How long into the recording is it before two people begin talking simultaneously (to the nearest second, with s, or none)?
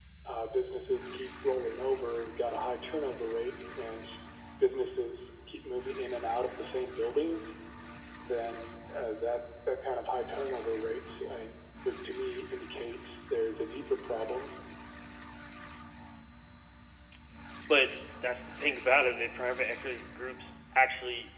none